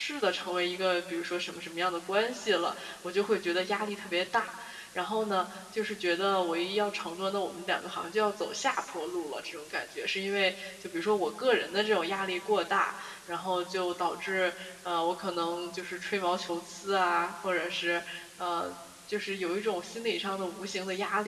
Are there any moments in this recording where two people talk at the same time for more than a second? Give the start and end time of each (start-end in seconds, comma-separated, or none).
none